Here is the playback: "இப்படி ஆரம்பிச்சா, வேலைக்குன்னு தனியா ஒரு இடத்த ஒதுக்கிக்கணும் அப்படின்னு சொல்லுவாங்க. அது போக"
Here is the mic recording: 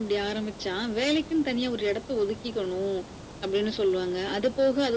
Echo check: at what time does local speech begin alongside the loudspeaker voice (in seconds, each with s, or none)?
none